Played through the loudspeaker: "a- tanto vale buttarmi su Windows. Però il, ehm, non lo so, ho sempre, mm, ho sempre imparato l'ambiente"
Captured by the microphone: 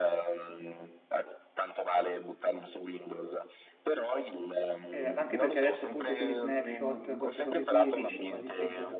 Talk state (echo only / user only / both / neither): both